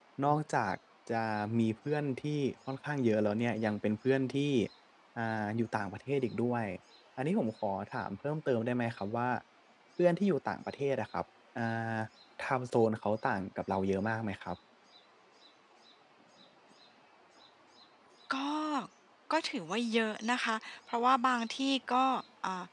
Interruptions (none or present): none